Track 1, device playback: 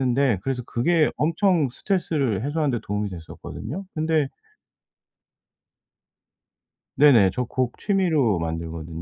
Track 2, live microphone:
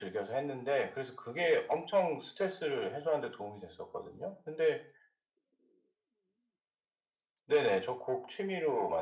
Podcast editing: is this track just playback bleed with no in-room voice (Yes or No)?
Yes